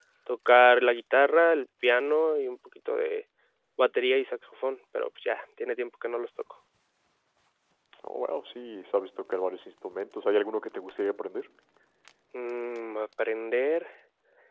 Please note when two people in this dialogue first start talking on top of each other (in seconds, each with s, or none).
none